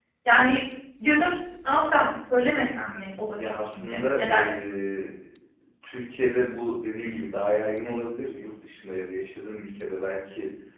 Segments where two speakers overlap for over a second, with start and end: 3.3-4.5

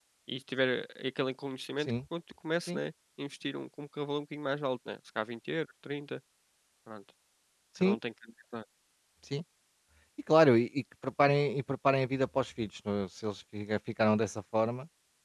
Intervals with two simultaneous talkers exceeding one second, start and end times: none

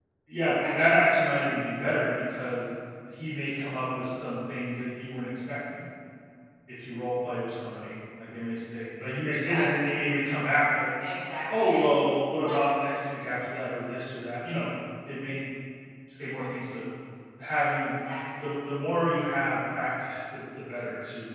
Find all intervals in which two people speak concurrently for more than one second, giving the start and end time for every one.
none

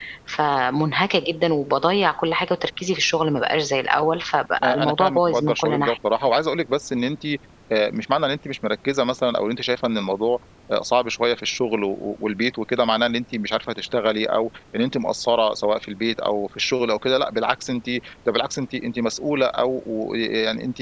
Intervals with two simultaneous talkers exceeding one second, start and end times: 4.6-6.0

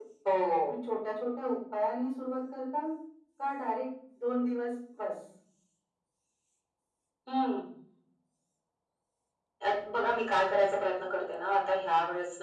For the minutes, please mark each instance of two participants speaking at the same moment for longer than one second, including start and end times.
none

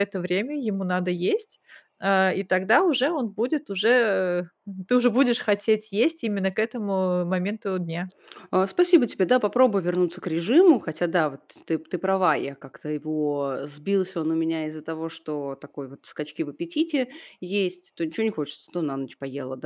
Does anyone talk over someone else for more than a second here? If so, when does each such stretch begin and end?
none

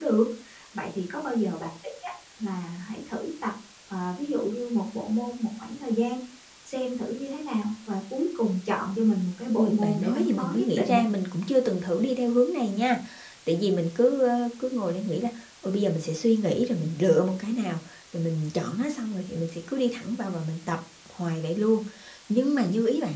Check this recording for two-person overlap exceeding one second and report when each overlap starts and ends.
9.6-11.0

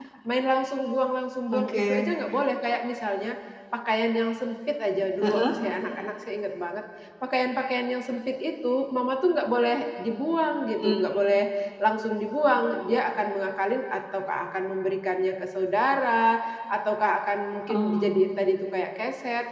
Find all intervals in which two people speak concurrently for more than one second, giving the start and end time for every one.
none

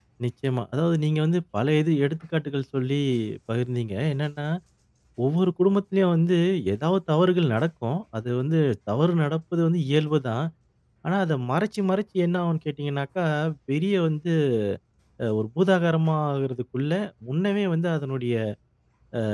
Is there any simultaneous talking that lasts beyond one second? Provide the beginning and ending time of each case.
none

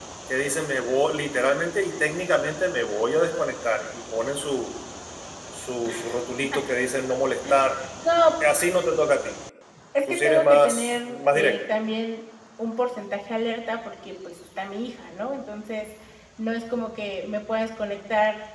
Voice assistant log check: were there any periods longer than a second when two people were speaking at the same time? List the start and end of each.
10.1-11.6

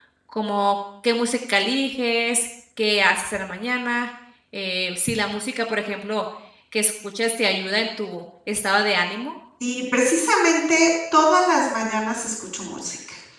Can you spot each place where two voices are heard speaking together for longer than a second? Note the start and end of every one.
none

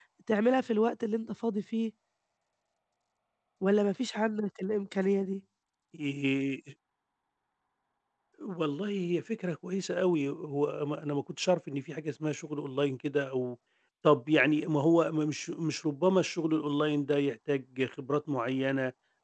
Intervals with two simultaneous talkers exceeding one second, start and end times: none

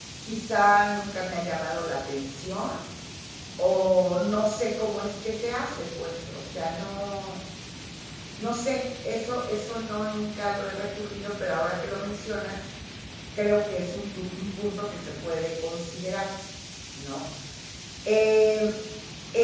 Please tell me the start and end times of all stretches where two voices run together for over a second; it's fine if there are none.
none

